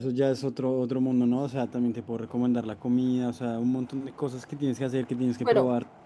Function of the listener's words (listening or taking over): taking over